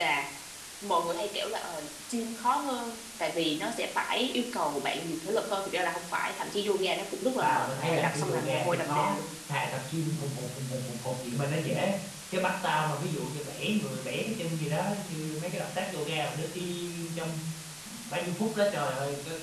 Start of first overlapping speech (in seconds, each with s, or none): 7.4 s